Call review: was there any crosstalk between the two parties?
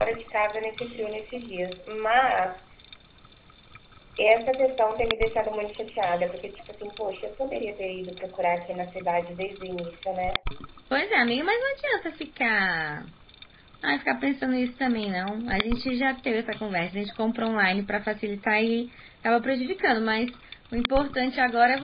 No

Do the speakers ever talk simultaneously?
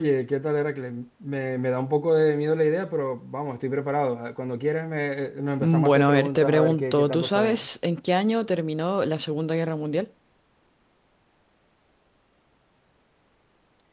Yes, from 5.6 s

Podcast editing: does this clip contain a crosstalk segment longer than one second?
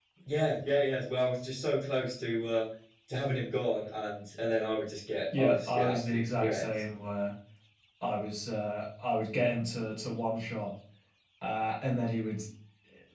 Yes, from 5.3 s

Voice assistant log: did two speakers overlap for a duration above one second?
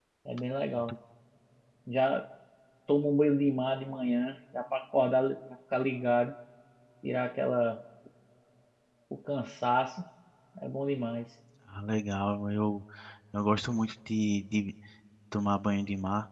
No

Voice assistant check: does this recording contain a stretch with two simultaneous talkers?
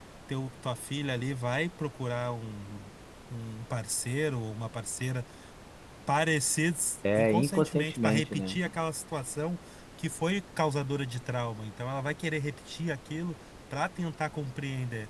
Yes, from 7.0 s

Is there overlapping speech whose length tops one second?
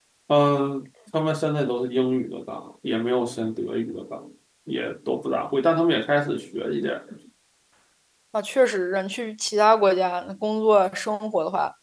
No

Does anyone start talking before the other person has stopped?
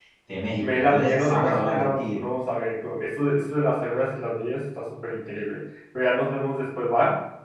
Yes, from 0.6 s

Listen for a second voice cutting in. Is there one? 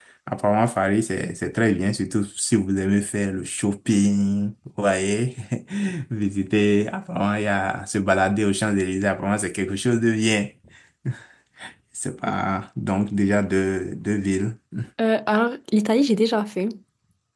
No

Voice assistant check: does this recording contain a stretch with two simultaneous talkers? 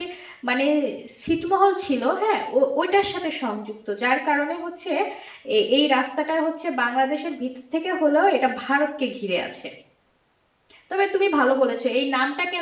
No

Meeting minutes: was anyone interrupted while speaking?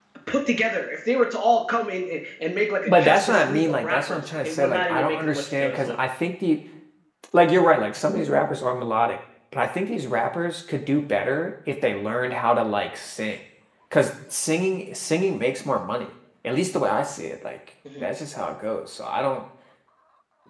Yes, from 2.9 s

